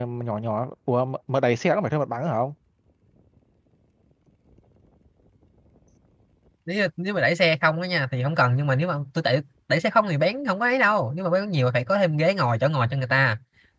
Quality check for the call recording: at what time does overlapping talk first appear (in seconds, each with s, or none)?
none